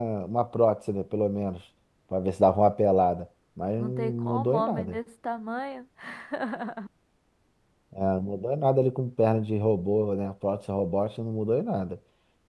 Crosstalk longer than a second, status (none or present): present